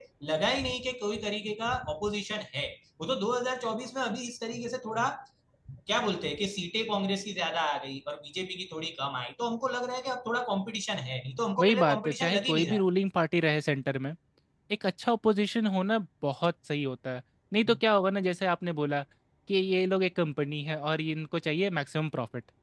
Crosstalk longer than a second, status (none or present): present